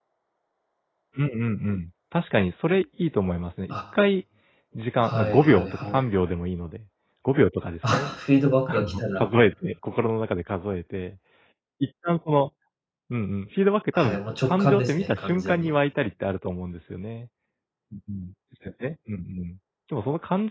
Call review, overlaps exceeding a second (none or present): present